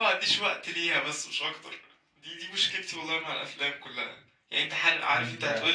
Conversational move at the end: listening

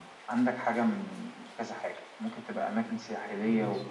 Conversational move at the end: listening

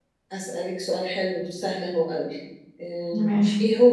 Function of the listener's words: listening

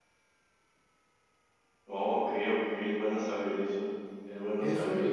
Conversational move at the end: taking over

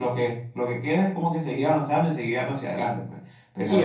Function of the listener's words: taking over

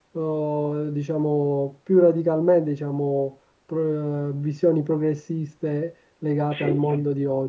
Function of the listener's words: listening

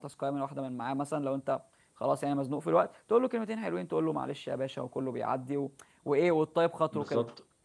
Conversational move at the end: taking over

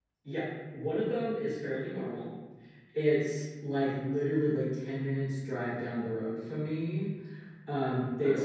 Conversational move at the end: listening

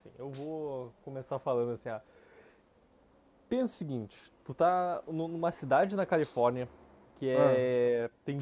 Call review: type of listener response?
listening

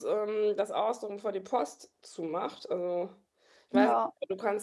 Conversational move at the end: listening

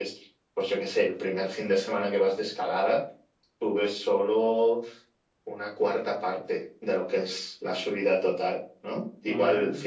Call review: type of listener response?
listening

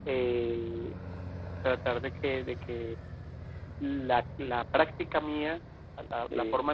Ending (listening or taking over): listening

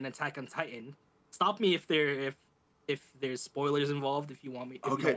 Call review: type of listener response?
taking over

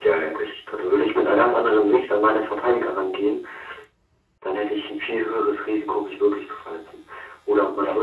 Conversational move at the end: listening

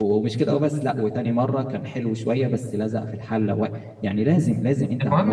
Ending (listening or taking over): taking over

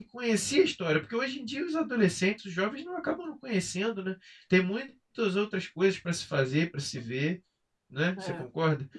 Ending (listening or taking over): taking over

